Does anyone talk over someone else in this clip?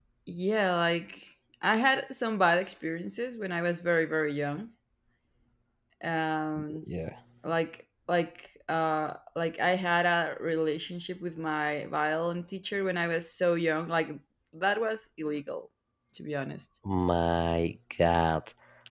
No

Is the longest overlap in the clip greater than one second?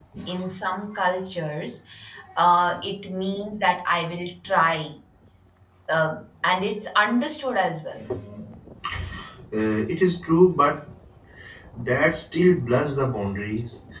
No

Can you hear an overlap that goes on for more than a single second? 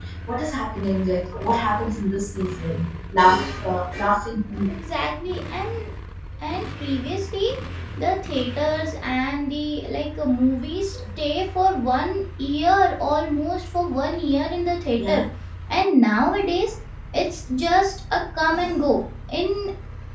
No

